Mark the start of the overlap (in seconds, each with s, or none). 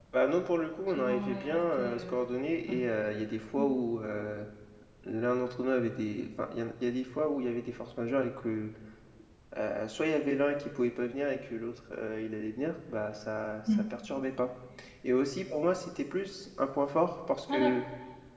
0.9 s